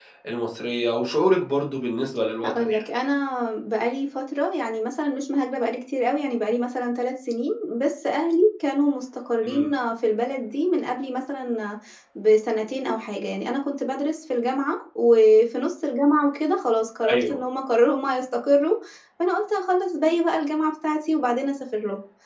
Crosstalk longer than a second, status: none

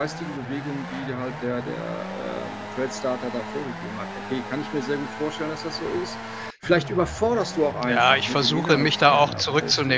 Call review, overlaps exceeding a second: present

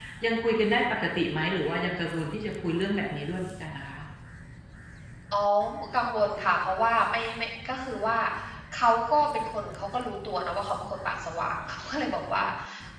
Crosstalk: none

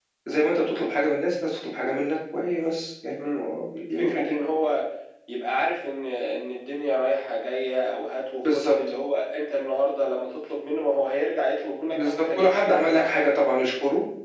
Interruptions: present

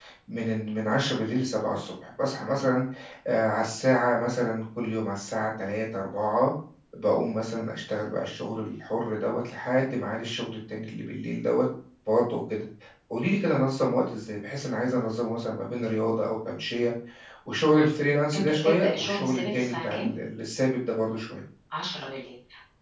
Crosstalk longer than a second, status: present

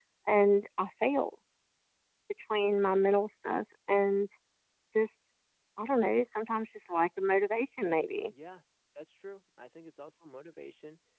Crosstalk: none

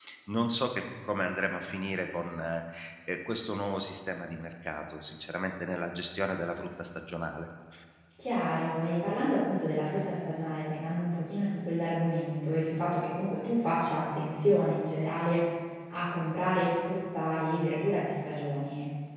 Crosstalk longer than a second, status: none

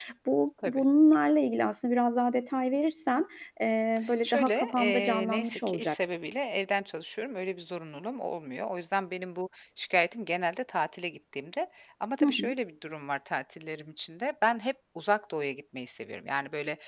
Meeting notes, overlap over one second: present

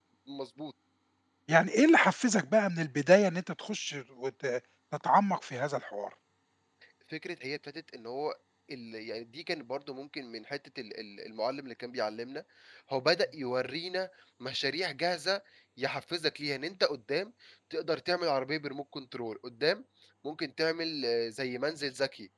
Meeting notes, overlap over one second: none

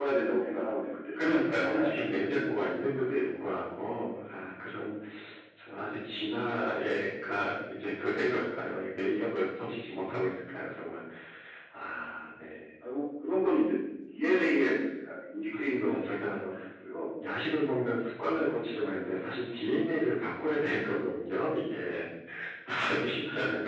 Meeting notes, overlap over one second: present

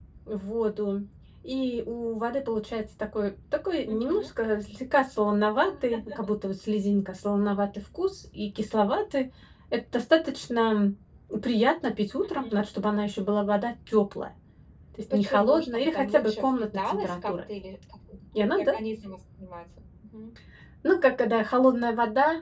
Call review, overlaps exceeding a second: present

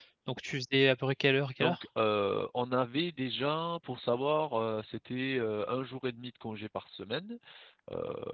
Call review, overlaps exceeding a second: none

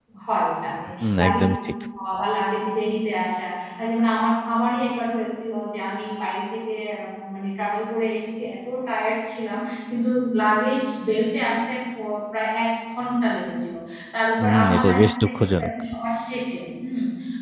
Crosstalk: present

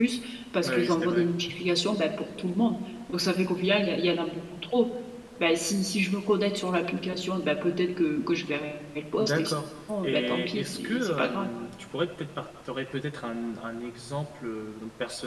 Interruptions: present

